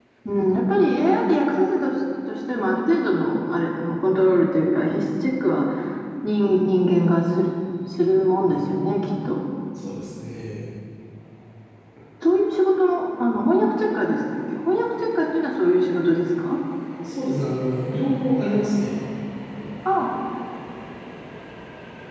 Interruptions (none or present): none